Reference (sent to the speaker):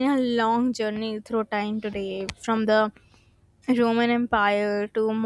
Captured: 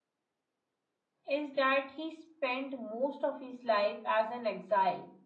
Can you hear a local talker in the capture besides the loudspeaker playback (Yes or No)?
Yes